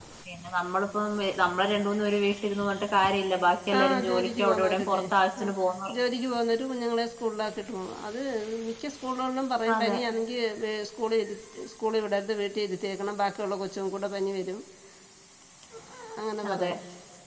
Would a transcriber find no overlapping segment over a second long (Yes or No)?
No